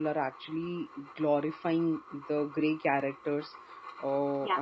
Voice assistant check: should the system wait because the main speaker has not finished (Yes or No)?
Yes